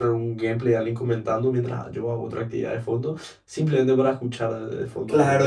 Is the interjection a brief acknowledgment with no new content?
No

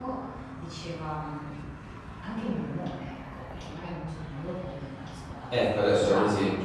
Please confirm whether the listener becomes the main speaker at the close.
Yes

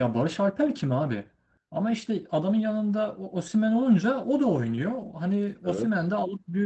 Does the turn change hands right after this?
No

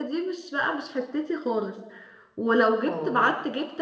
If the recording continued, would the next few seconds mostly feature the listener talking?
No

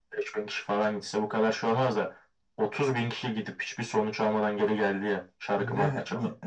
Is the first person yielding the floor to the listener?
Yes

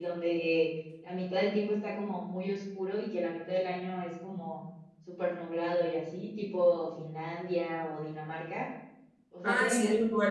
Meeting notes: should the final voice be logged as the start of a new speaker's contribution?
Yes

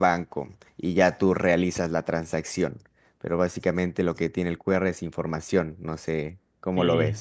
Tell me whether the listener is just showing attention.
No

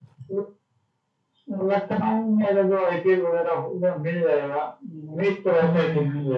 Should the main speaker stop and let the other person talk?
No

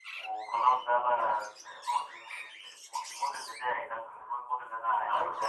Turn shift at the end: Yes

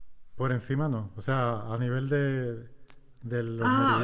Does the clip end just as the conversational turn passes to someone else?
Yes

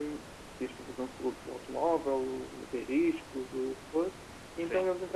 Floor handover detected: No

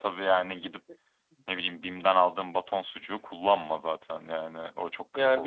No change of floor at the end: No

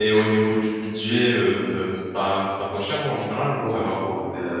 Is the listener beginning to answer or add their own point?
Yes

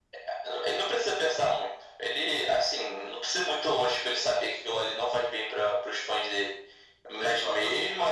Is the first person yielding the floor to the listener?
No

